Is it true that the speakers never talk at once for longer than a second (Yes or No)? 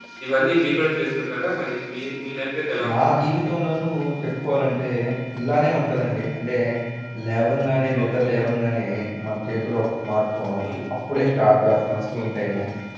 Yes